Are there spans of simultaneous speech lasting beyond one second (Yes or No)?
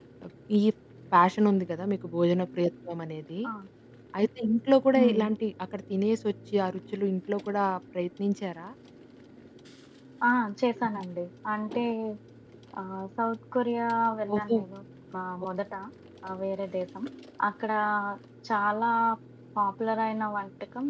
No